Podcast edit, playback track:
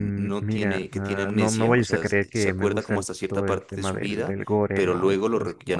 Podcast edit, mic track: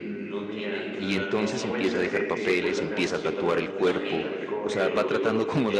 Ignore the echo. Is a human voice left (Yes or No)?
Yes